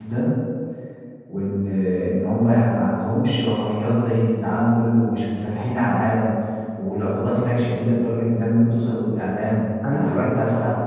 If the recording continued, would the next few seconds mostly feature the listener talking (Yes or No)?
Yes